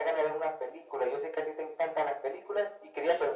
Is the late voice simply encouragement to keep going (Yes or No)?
Yes